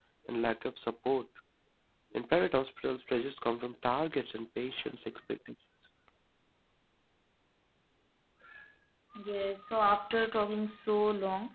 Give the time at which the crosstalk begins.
none

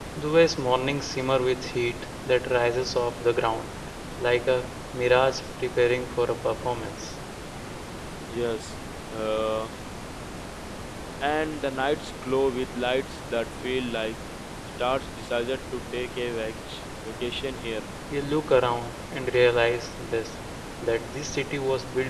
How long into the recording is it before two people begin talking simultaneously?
none

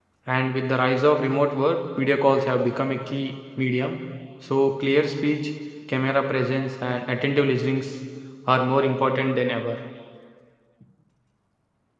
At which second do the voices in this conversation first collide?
none

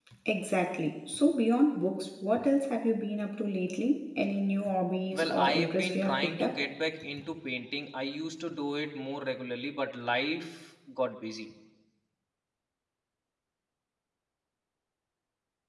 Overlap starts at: 5.1 s

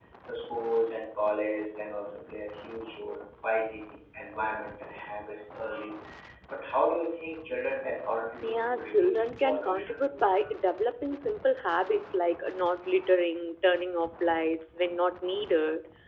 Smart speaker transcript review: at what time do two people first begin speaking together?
8.4 s

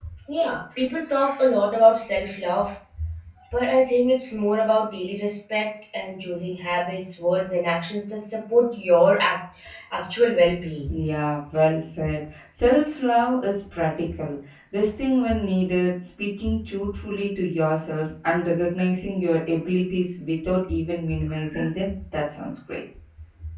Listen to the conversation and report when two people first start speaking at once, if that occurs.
none

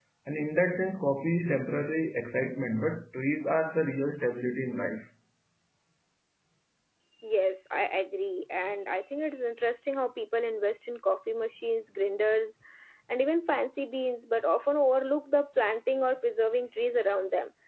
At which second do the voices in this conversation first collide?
none

